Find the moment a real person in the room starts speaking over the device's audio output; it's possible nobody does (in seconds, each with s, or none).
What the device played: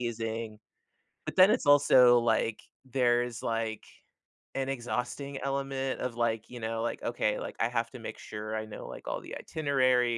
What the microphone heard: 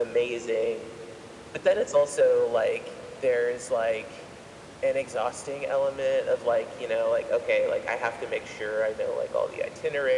none